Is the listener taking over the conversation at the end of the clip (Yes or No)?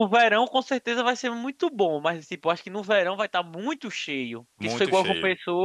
No